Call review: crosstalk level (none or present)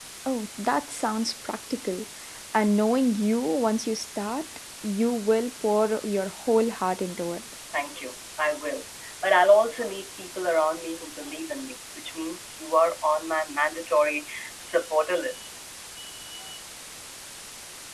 none